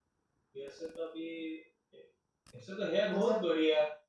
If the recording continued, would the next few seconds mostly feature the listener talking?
No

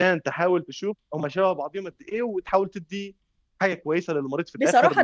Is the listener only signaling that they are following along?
No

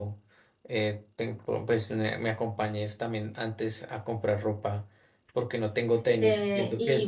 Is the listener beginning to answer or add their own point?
Yes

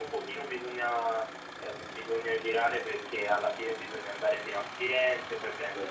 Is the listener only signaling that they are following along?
Yes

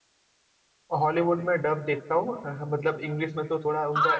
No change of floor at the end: No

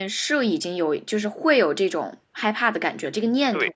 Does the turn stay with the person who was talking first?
No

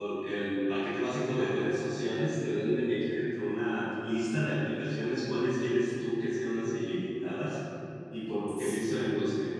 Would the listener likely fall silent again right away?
Yes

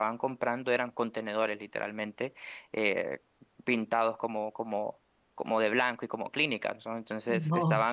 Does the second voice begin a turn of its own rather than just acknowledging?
No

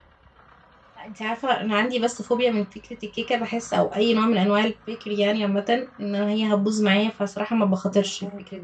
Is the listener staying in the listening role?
Yes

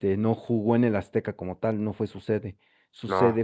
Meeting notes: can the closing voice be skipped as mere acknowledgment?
Yes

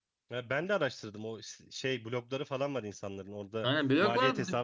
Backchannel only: No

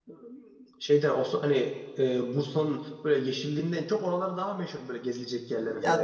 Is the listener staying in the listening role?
No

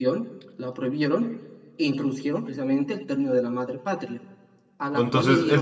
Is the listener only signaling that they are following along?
No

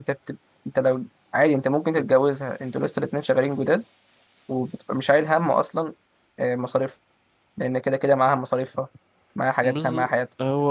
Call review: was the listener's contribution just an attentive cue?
No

